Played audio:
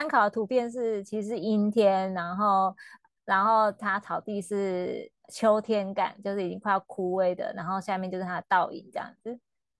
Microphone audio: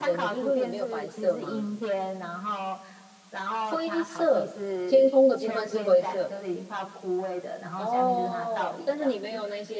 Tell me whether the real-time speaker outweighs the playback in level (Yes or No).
Yes